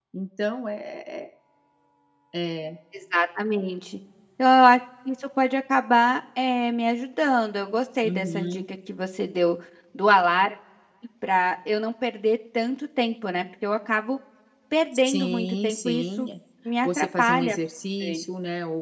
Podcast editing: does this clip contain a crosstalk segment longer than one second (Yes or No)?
Yes